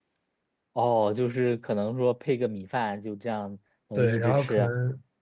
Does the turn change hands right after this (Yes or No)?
Yes